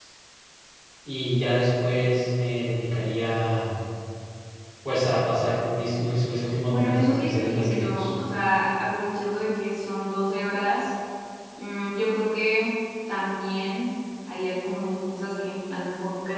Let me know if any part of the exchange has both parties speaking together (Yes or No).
Yes